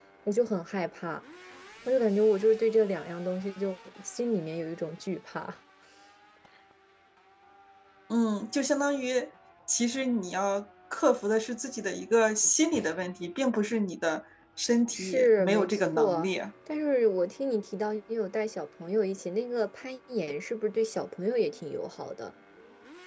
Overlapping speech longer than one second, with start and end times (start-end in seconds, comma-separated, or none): 14.9-16.3